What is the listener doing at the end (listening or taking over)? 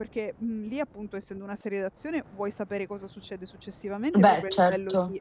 listening